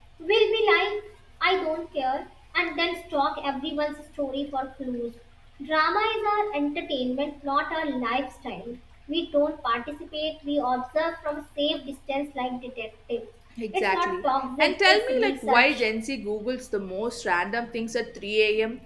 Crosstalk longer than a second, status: present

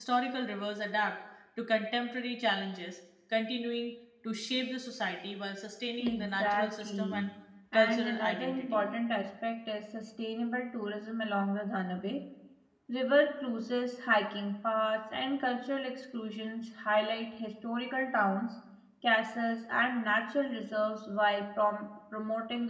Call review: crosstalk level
present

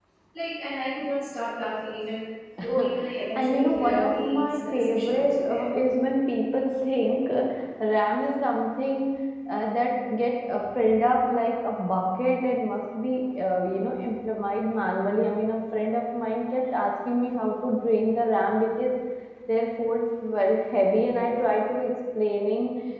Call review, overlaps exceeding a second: present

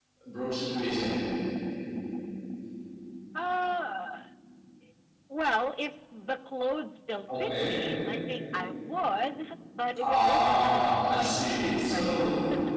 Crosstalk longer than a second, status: present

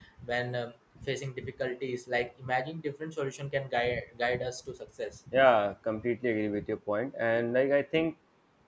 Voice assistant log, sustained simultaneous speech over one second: none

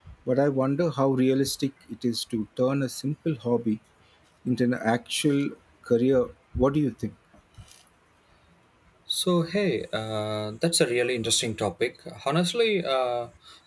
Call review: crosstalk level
none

